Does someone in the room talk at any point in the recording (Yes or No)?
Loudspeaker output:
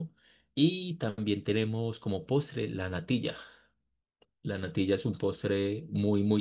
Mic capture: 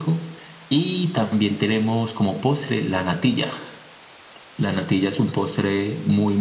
No